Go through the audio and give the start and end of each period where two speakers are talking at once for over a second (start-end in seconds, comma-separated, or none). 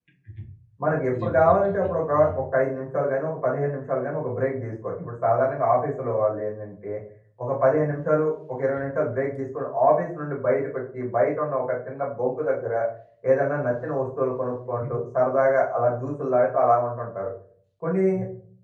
1.1-2.4